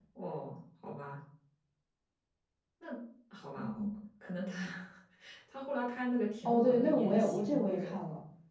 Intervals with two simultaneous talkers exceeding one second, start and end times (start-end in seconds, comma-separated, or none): 6.5-7.9